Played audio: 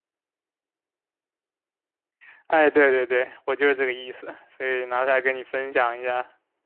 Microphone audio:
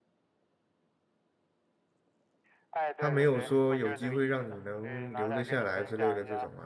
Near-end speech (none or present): present